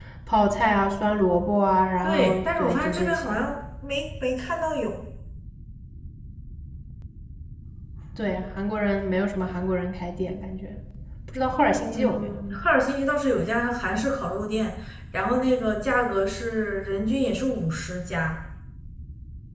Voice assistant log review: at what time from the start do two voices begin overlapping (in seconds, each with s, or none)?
2.0 s